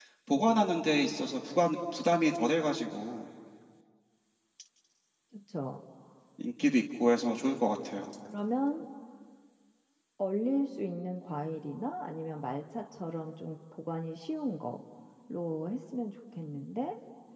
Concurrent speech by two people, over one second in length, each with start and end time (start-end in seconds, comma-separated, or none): none